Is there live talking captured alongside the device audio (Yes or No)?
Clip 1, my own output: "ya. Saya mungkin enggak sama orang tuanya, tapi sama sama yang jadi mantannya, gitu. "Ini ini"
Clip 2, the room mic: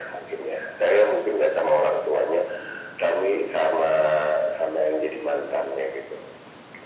No